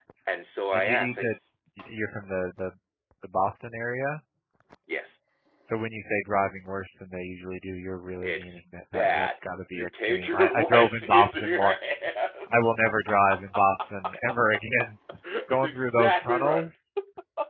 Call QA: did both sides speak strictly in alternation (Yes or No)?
No